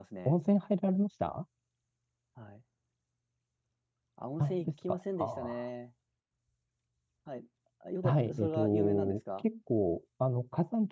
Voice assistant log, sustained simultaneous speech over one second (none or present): present